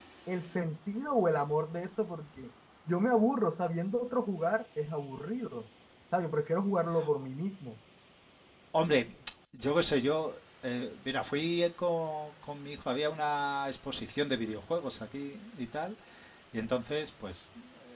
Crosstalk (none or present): none